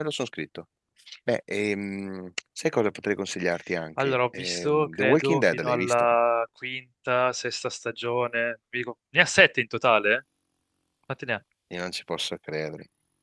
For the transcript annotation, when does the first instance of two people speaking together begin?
4 s

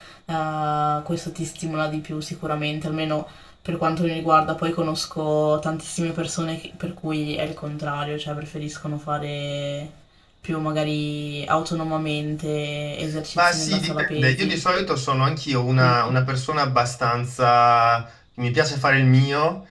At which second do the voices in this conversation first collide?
13 s

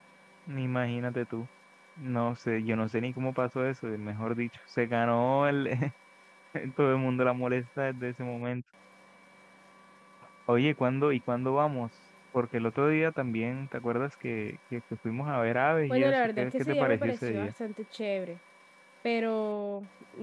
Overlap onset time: 16 s

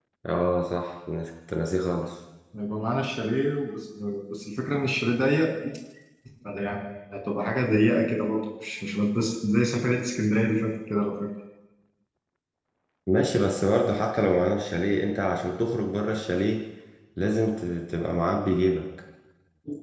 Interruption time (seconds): none

